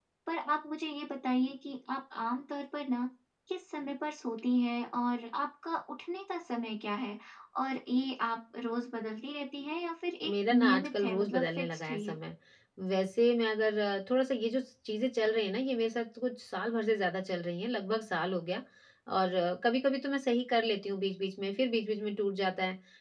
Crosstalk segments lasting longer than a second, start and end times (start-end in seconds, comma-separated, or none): 10.3-12.2